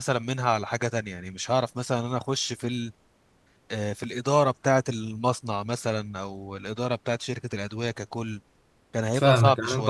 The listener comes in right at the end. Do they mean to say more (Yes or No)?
Yes